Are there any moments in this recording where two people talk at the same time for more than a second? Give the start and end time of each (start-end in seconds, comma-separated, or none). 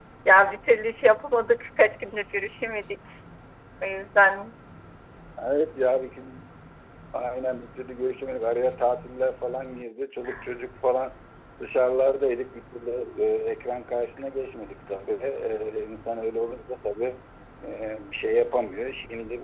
none